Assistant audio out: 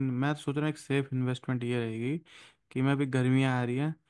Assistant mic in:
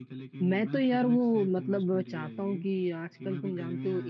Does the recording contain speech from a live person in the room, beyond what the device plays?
Yes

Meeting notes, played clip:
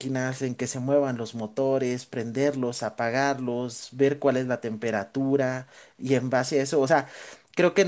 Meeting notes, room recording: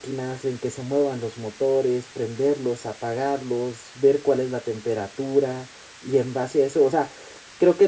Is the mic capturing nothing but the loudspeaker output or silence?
Yes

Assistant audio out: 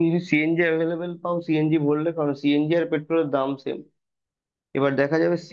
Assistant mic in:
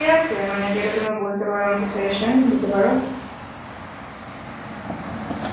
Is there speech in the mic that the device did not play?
Yes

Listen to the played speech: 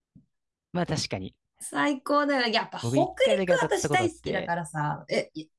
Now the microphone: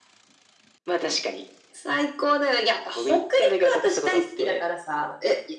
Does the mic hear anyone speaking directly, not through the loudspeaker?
No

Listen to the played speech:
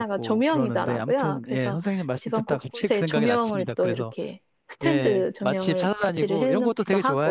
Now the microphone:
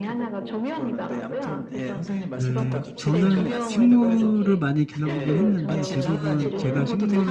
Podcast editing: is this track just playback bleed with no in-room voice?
No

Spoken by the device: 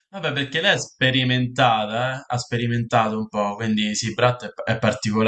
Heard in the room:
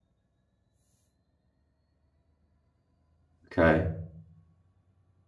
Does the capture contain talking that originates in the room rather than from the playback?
Yes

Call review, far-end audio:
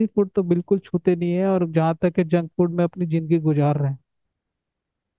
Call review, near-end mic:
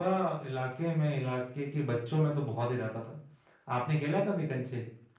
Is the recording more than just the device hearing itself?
Yes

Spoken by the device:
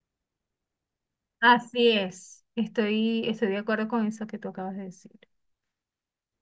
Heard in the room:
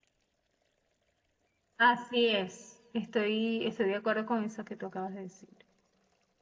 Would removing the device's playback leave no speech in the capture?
Yes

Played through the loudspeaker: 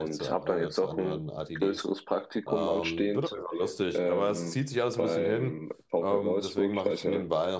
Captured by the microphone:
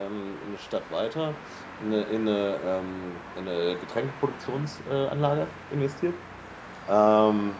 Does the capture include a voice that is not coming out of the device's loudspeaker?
Yes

